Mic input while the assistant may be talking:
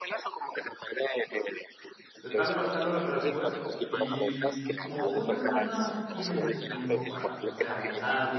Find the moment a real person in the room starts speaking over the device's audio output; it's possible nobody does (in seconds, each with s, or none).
2.2 s